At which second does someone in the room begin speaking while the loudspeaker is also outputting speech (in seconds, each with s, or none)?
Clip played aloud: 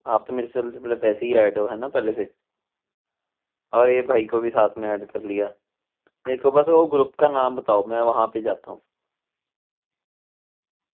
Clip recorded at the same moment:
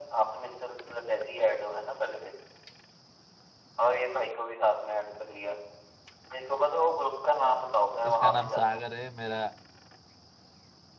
8.1 s